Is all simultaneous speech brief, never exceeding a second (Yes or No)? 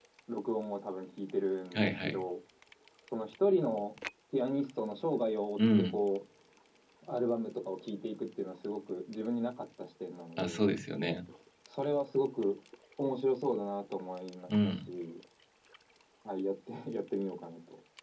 Yes